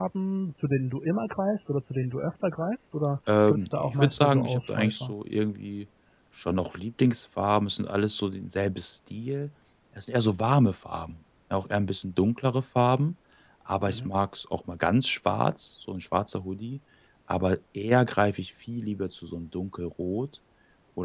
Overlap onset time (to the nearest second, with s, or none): 3 s